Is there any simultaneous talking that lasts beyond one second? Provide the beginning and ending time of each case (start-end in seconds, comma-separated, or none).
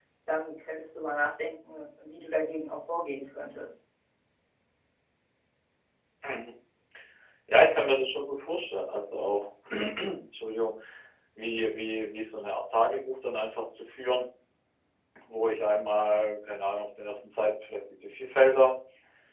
none